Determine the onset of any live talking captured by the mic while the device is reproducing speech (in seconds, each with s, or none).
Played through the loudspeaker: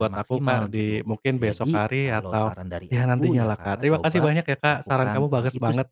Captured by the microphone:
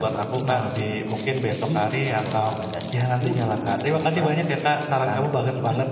none